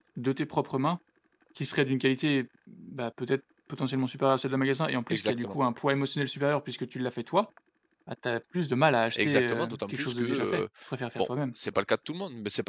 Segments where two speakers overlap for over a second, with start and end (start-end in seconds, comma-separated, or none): 9.2-10.6